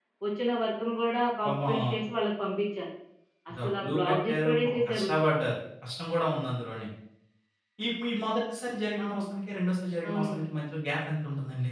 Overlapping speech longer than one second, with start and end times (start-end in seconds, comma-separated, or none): 3.6-5.1